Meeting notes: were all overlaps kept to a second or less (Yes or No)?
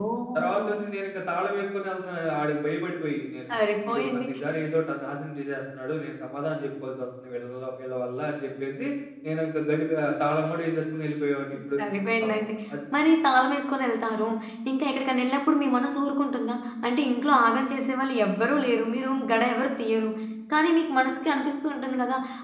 Yes